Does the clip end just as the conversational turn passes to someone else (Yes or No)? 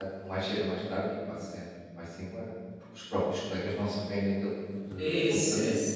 Yes